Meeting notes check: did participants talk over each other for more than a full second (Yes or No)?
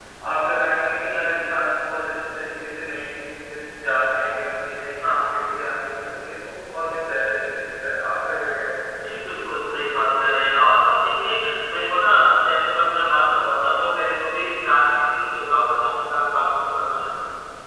No